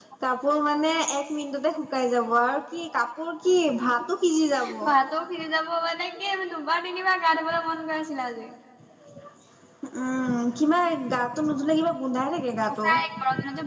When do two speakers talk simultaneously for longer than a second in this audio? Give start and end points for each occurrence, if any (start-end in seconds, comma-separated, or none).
none